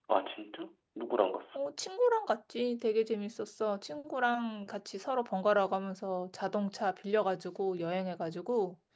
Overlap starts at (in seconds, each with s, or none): none